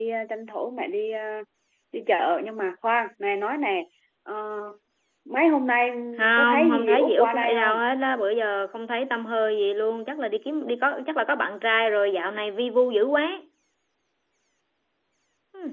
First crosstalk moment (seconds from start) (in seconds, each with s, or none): 6.3 s